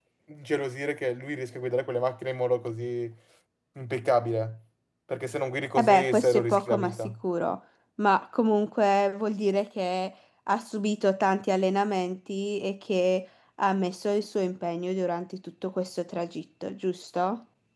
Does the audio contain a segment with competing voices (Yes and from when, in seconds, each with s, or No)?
Yes, from 5.8 s